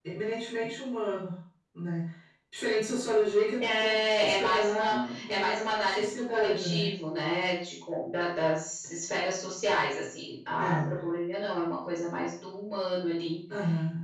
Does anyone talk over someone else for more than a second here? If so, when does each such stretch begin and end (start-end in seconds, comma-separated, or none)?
3.6-6.9